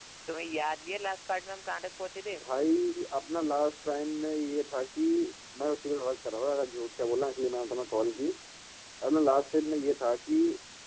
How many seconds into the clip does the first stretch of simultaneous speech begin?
none

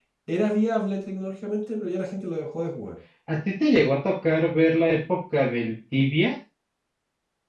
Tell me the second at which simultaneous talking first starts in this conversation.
none

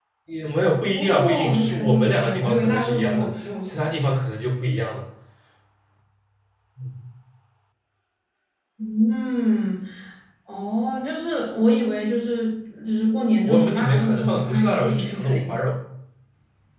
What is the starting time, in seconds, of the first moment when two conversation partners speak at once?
0.8 s

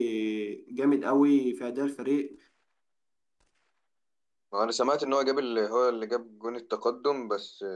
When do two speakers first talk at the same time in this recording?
none

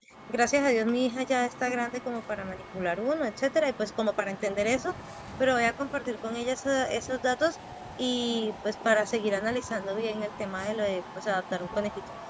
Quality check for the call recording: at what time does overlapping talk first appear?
none

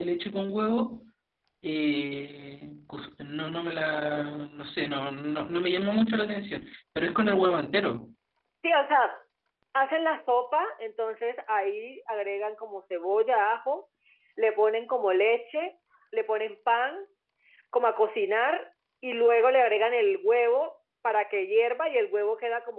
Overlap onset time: none

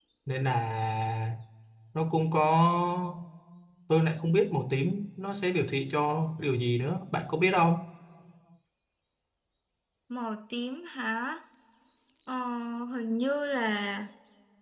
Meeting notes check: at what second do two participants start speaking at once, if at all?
none

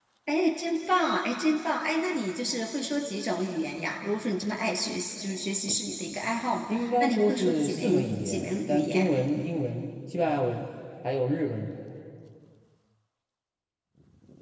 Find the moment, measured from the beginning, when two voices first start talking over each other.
6.7 s

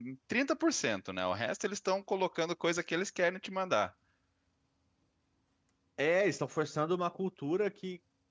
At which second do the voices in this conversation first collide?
none

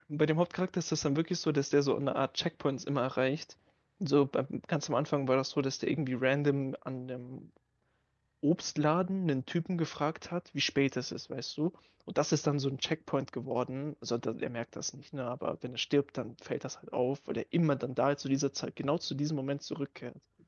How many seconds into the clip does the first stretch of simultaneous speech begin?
none

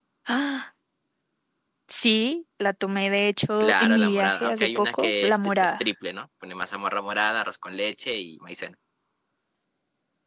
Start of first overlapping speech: 3.6 s

